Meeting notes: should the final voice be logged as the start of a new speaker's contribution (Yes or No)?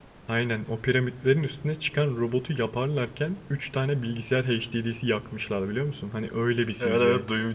Yes